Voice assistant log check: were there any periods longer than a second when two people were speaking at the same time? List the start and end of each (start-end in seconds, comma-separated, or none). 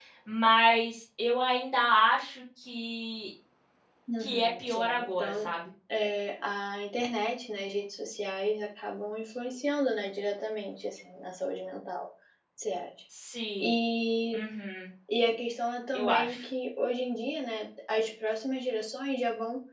4.2-5.5